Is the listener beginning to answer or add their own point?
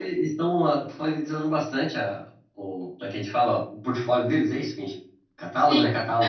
Yes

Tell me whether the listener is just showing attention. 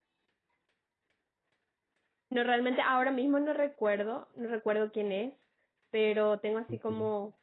Yes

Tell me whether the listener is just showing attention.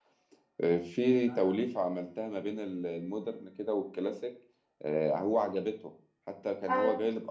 Yes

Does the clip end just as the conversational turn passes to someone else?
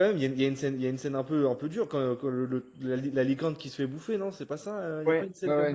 Yes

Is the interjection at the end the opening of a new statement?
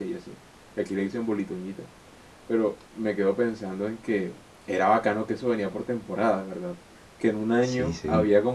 No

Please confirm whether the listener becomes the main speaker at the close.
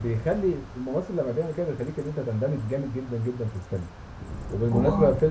No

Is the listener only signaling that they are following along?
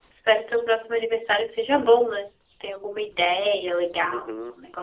No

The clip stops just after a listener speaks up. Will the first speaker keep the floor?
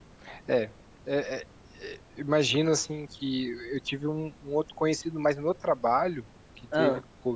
Yes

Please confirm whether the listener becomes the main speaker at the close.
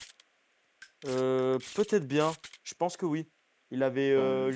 No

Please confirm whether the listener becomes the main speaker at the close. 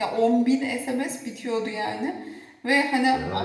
No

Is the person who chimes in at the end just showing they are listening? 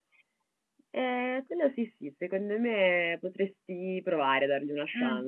No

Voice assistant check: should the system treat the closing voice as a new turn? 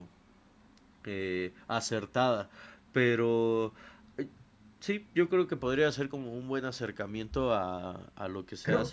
Yes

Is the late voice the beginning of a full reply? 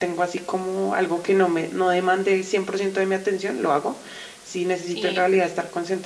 No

